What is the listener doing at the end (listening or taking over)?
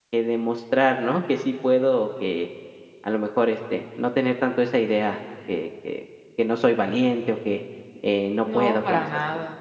taking over